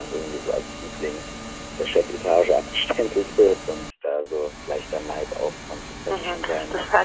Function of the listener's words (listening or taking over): taking over